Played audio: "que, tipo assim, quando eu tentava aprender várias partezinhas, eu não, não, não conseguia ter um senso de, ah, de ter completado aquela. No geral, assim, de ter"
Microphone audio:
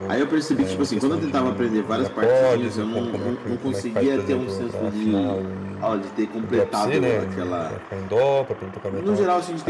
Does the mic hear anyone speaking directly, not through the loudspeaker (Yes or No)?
Yes